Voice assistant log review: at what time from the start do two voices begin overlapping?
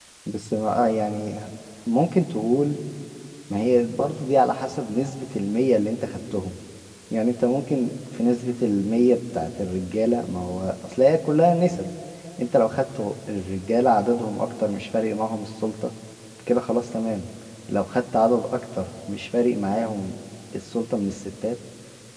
none

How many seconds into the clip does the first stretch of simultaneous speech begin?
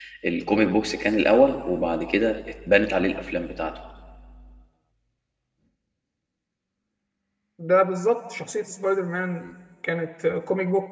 none

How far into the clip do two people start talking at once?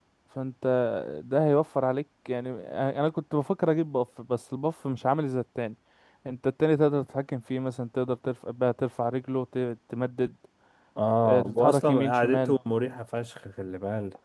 11 s

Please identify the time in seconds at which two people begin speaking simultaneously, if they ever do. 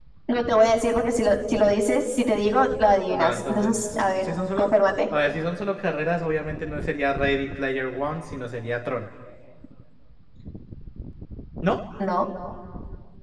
3 s

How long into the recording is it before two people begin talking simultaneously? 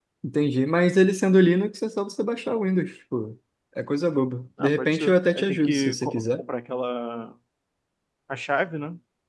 5 s

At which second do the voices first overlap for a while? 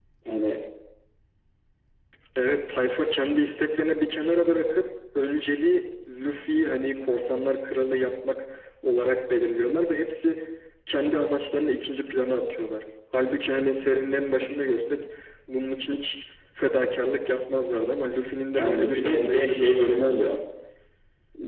19 s

